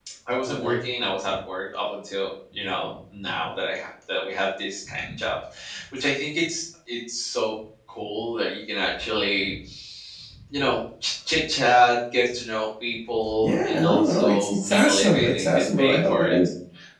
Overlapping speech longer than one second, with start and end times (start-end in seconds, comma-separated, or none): 13.4-16.4